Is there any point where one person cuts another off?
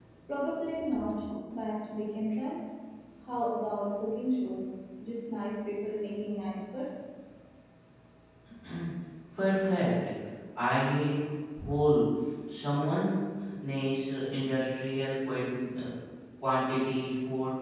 No

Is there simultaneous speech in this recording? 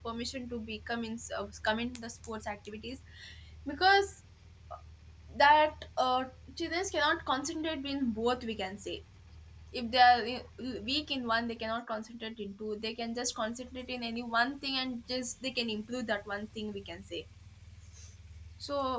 No

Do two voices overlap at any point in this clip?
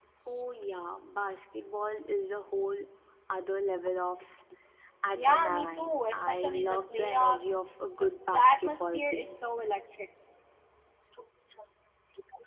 Yes, from 5.2 s

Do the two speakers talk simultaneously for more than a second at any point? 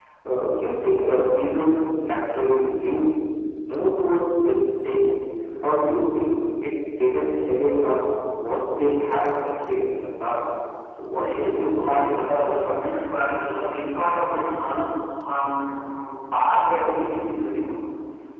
Yes, from 11.1 s

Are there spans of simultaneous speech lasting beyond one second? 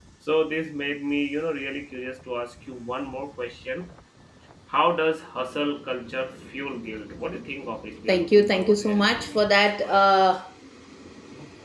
Yes, from 8.1 s

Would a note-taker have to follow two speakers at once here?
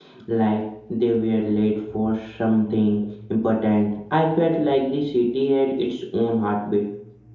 No

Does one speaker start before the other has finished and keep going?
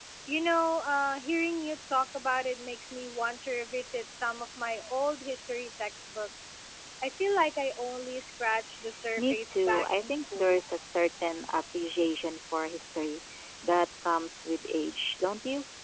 Yes, from 9.2 s

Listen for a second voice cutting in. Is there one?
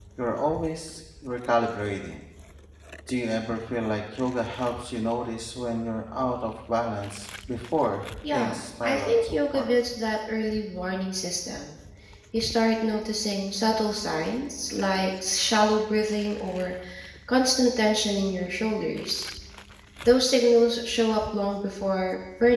Yes, from 8.2 s

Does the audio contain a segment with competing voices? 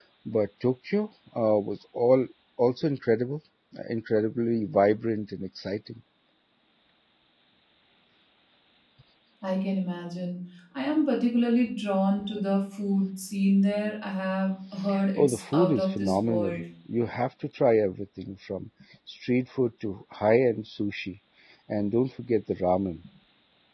Yes, from 15.2 s

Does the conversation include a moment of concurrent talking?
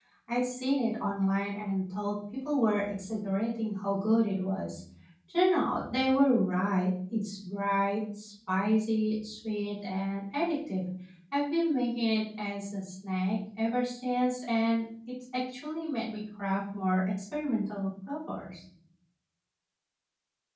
No

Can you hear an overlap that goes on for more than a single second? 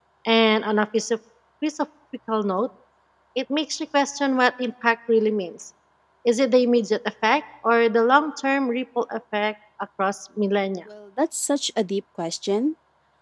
No

